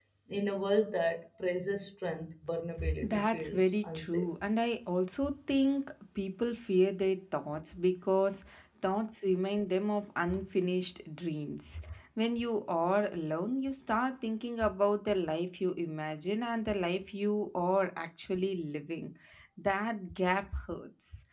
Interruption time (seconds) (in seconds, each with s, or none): 2.8 s